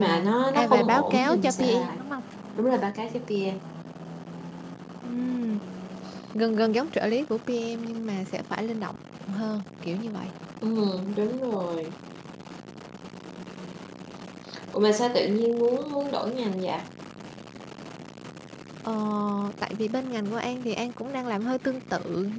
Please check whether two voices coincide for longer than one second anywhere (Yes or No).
Yes